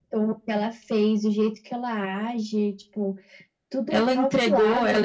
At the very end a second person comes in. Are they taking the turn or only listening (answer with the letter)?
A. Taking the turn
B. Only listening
A